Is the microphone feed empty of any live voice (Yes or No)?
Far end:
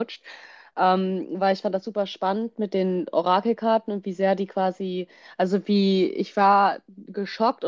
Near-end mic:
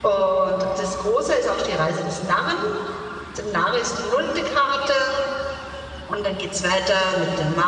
No